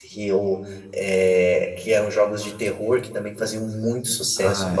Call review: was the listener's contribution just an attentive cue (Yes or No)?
Yes